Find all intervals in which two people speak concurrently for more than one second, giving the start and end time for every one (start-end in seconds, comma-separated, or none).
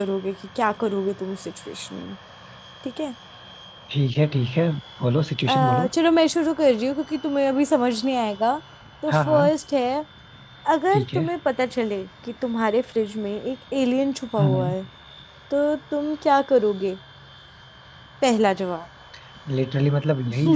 none